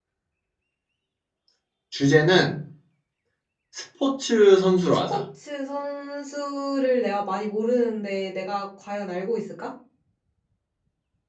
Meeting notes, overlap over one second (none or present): none